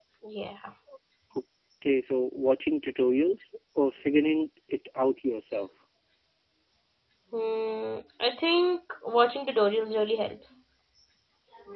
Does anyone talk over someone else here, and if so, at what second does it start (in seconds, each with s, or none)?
none